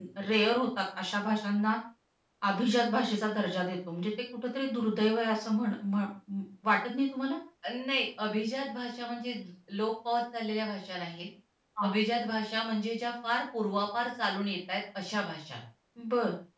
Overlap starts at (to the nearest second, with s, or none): none